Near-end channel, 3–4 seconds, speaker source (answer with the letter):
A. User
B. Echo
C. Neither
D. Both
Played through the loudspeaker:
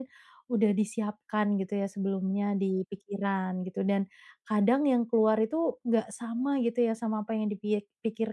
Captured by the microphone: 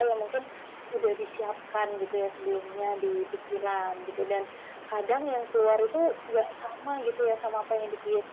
B